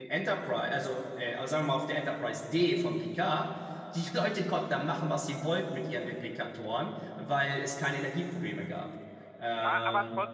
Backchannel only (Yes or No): No